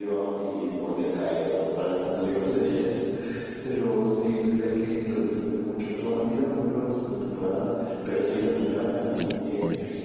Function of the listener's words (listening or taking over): listening